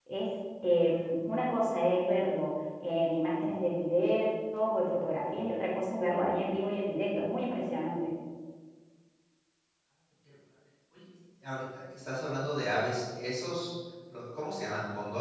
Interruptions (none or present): none